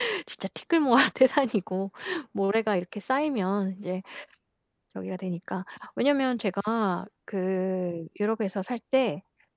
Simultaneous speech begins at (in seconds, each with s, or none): none